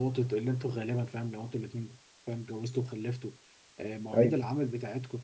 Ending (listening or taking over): listening